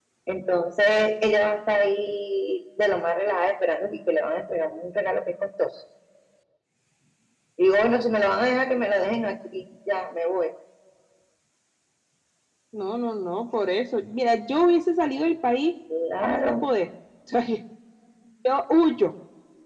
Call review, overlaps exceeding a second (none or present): none